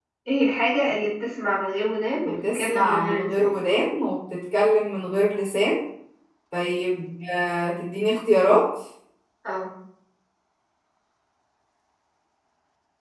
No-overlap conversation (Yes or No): No